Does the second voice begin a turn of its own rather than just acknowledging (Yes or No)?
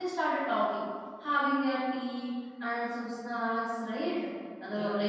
No